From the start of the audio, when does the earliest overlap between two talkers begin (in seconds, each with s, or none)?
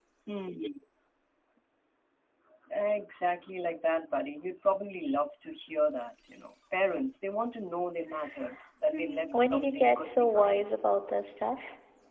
8.9 s